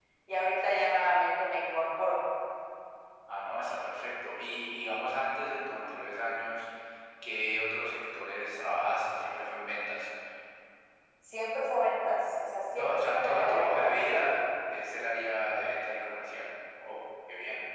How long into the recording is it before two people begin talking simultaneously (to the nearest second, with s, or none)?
13 s